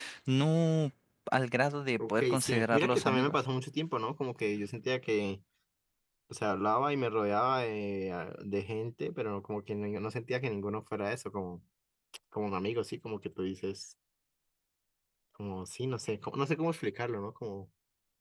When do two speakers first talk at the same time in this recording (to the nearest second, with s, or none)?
2 s